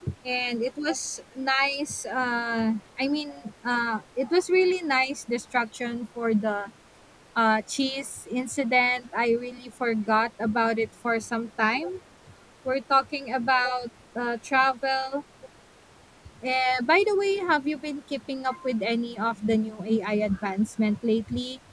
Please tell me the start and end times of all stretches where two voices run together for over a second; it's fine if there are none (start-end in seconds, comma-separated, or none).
none